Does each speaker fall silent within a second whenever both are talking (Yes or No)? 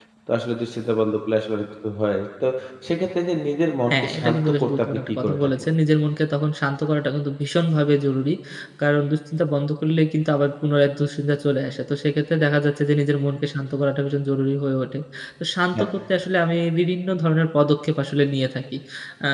No